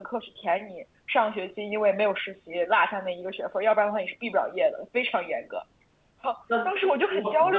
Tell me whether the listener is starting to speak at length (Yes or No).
Yes